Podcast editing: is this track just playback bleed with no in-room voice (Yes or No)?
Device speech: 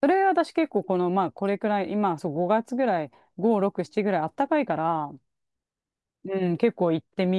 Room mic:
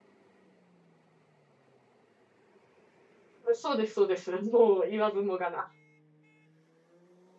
No